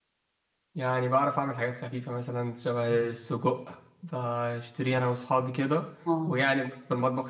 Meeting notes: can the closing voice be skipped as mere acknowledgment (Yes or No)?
Yes